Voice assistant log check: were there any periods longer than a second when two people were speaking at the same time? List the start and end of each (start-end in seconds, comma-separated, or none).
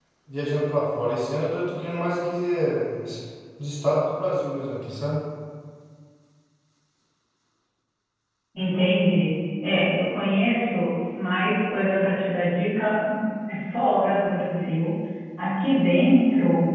none